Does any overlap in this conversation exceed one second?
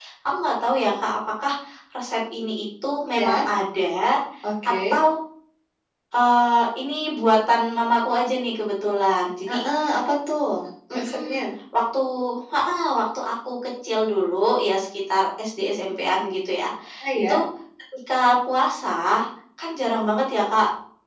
No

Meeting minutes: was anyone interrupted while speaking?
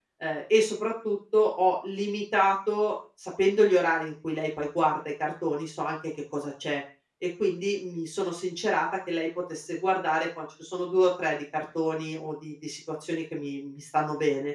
No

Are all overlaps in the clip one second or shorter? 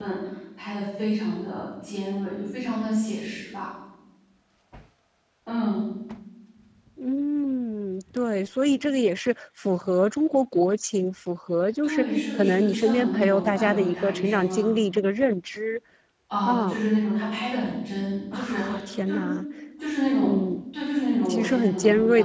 No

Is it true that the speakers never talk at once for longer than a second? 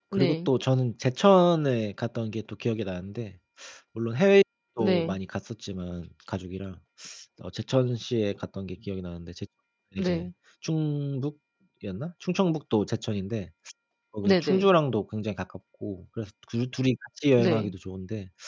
Yes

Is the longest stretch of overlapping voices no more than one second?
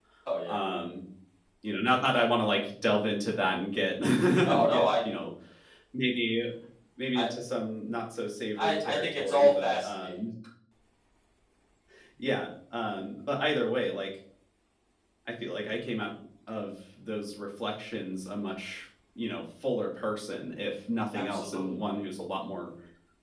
No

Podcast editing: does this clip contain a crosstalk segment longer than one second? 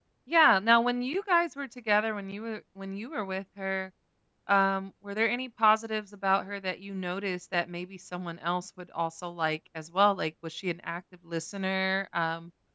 No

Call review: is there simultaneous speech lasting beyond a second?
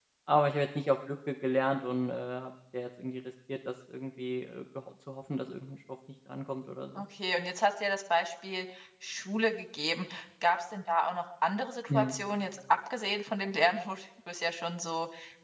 No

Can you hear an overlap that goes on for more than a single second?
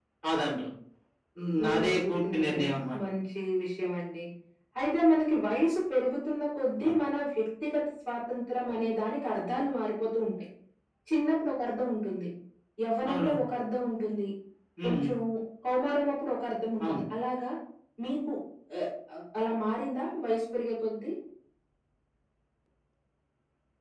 Yes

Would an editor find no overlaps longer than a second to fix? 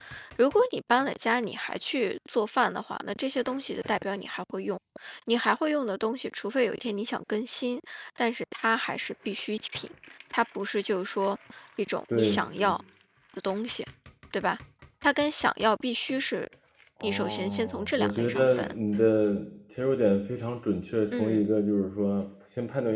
No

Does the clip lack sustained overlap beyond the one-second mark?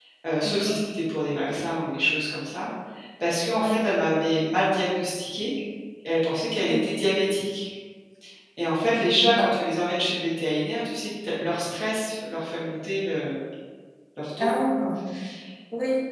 Yes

